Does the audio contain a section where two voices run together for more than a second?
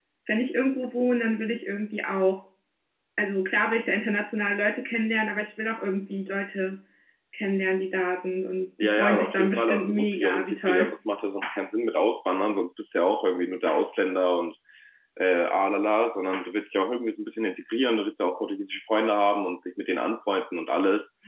Yes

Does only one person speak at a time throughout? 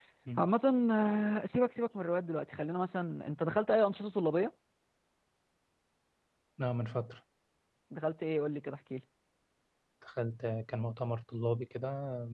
Yes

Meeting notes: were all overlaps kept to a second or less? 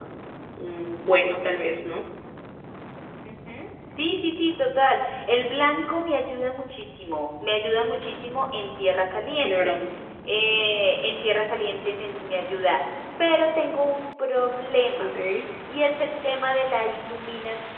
Yes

